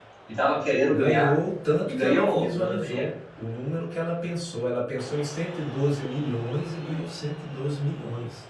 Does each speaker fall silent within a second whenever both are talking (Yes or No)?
No